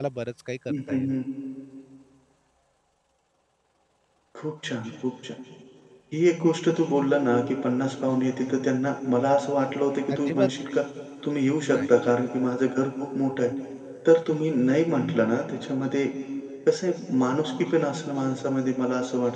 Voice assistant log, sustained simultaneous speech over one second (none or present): none